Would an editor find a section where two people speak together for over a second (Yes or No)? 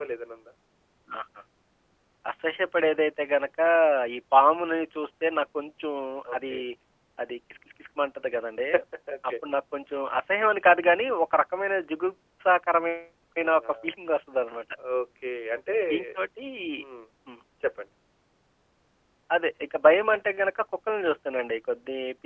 No